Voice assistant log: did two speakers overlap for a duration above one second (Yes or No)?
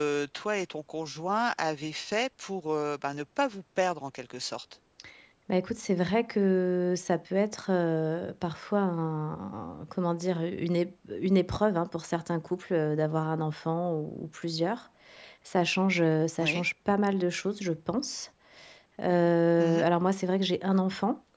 No